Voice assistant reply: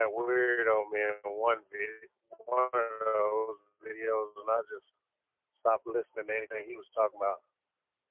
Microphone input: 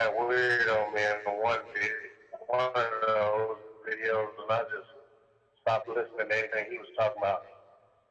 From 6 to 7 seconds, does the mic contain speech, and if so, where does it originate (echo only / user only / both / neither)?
echo only